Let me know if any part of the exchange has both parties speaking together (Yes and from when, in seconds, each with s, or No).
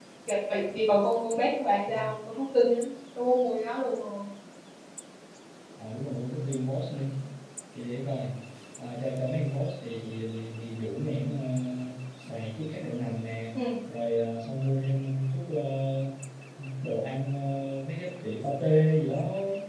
No